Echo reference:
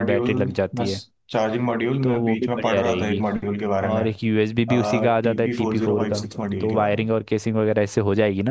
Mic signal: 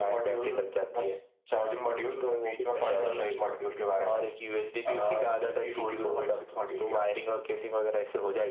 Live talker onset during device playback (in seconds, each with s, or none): none